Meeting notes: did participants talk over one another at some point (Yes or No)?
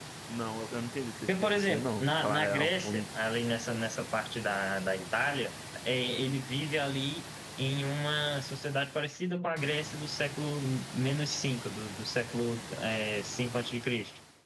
Yes